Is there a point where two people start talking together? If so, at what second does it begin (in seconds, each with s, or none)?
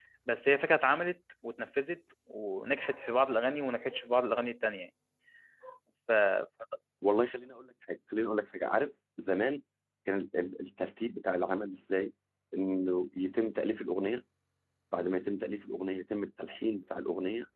none